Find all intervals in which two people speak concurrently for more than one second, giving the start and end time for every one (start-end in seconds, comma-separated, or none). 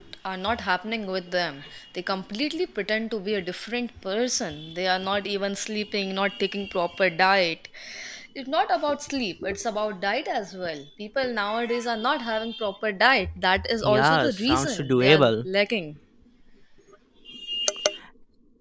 13.8-15.5